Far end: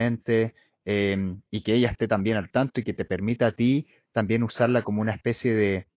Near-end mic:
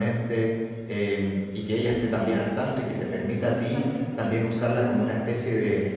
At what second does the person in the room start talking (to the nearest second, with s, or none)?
2 s